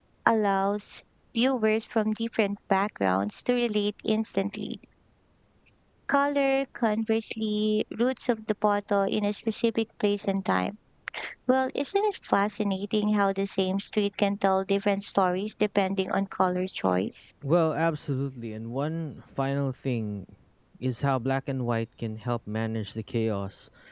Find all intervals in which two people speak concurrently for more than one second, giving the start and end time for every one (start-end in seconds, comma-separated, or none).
none